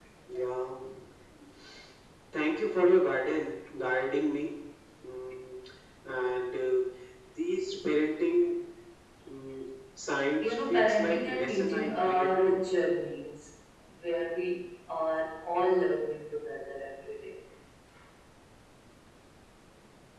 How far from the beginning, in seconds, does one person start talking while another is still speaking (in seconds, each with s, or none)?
10.4 s